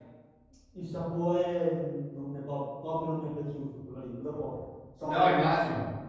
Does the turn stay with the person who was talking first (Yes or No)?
No